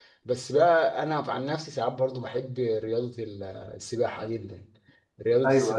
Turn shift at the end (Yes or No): No